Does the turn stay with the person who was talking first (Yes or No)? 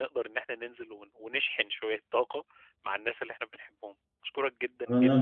No